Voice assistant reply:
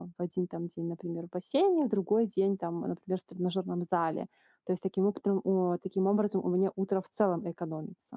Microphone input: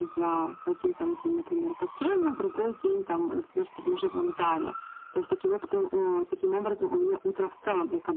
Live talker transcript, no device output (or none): none